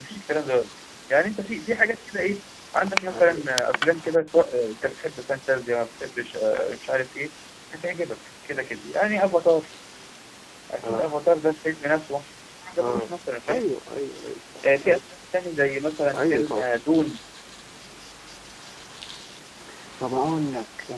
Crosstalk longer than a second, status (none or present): none